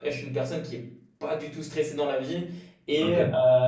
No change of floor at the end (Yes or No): Yes